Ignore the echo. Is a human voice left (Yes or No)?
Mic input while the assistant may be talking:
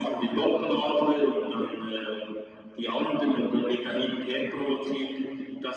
No